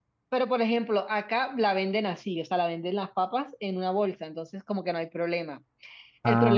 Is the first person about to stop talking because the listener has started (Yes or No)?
No